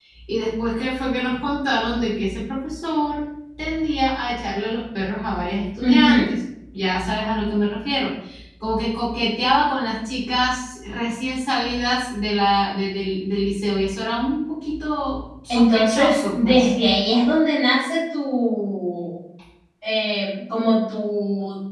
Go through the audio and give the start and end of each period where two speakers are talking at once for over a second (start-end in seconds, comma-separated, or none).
15.5-16.7